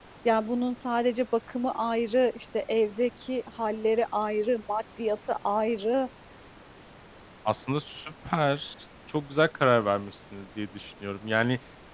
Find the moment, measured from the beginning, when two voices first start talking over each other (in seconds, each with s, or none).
none